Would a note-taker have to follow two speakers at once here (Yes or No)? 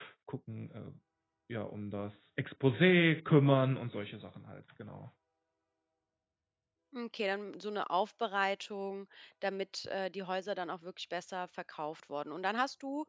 No